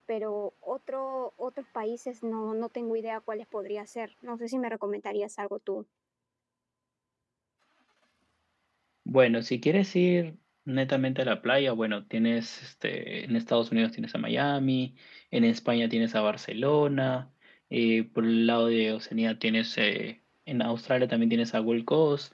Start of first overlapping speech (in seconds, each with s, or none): none